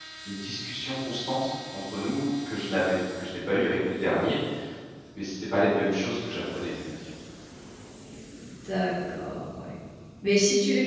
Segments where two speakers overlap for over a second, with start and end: none

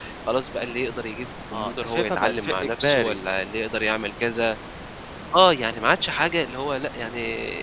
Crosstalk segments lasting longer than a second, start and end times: 1.5-3.2

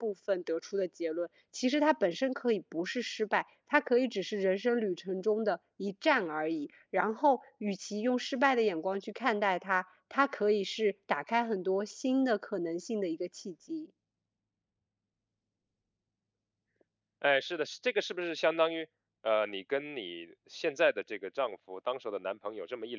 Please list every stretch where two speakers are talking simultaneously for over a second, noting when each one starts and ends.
none

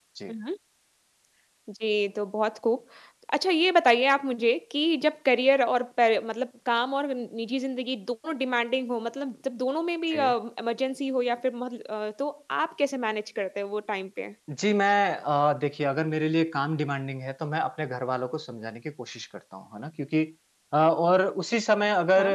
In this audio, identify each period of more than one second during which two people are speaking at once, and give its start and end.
none

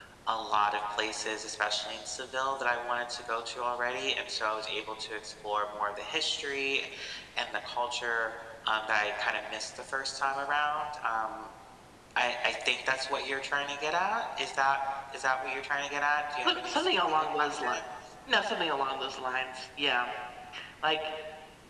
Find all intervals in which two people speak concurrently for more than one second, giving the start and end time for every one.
16.4-17.7

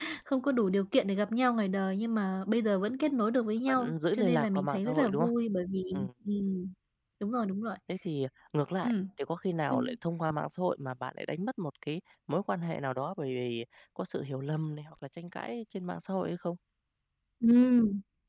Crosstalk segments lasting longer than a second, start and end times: 3.7-5.3

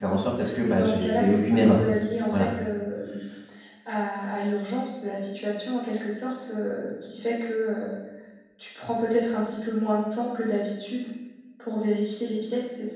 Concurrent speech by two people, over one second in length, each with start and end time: 0.6-1.9

